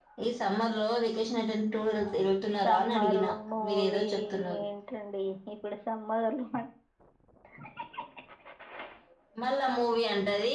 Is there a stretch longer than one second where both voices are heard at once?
Yes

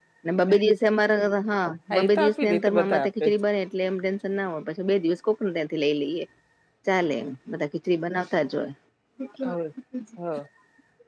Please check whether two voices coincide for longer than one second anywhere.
Yes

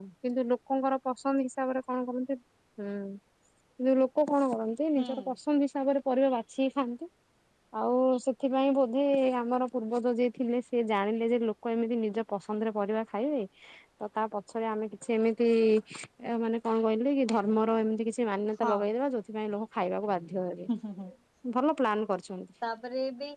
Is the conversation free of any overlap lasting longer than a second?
Yes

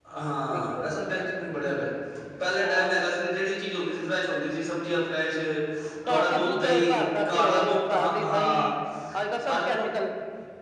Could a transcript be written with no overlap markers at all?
No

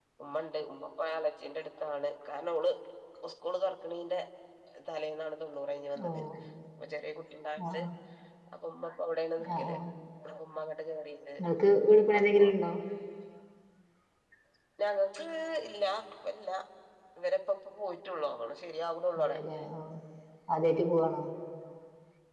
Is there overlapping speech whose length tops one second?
No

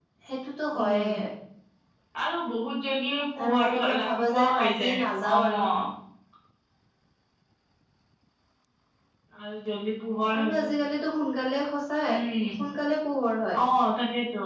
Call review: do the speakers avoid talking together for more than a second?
No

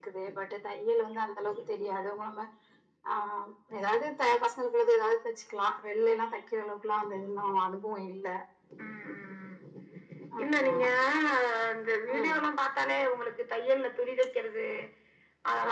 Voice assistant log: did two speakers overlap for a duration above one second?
No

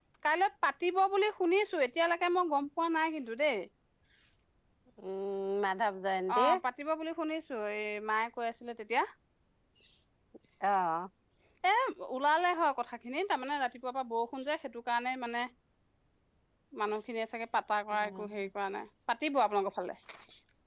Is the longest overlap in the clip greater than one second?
No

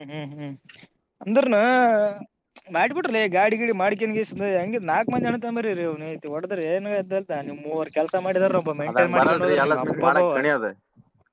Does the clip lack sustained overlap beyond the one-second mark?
No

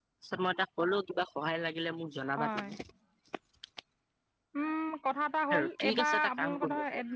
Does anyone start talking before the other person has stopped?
Yes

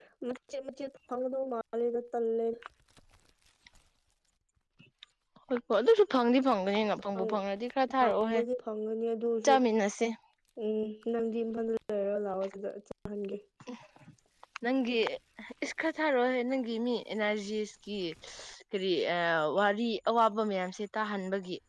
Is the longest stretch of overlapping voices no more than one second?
Yes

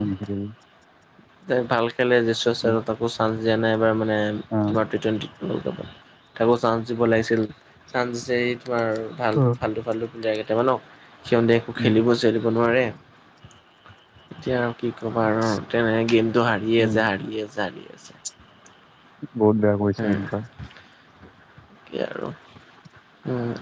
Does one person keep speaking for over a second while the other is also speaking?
No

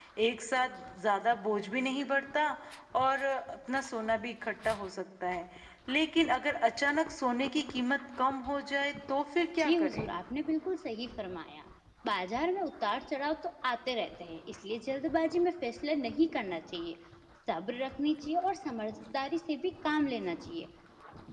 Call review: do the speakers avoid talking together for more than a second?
Yes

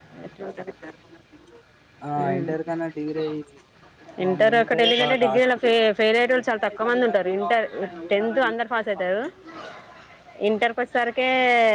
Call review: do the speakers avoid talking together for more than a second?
No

